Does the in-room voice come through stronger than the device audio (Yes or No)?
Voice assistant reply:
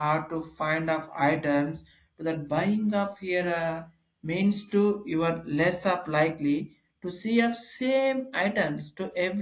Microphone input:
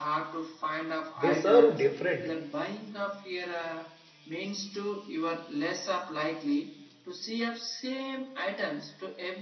Yes